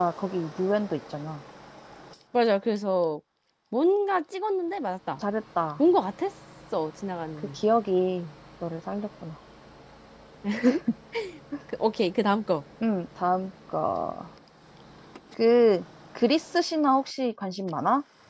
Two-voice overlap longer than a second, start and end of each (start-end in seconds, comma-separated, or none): none